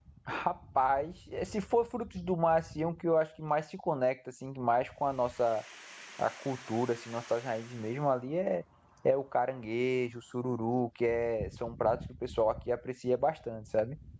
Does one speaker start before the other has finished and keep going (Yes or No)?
No